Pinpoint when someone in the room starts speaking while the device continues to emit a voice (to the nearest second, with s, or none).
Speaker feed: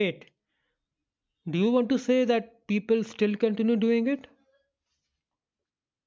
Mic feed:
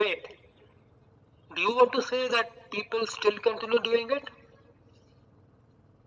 none